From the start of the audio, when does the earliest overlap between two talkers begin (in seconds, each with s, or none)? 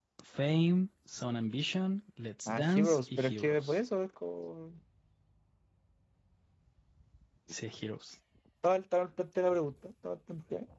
2.5 s